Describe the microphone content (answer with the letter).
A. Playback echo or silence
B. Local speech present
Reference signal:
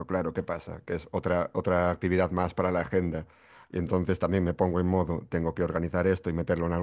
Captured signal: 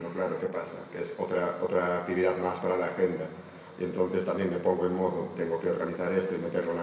A